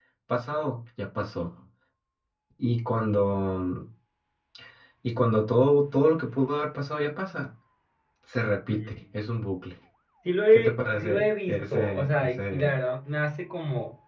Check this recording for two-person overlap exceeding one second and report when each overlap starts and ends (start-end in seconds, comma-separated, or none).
10.5-12.8